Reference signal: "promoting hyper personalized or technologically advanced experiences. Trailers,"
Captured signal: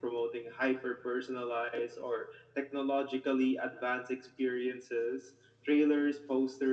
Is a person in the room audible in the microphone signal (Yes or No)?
No